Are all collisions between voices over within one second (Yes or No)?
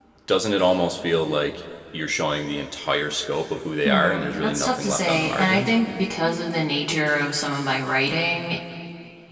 No